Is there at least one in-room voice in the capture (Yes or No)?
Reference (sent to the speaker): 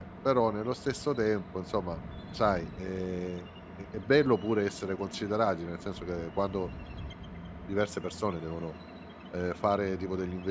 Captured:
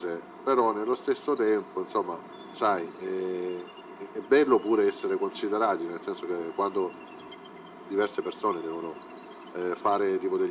No